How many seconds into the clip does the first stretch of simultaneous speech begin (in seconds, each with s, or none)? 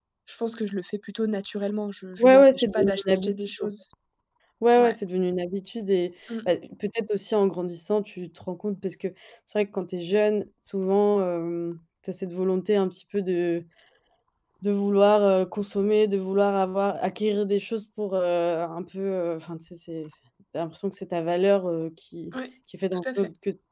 2.2 s